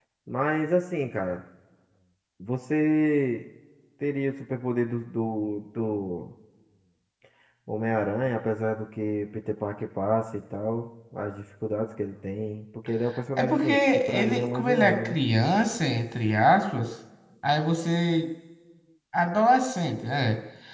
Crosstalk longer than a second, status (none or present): present